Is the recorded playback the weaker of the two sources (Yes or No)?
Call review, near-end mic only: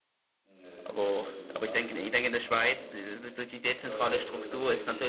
Yes